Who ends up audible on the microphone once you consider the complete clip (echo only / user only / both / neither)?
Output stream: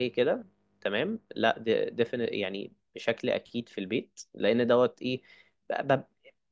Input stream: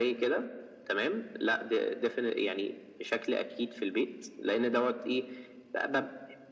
echo only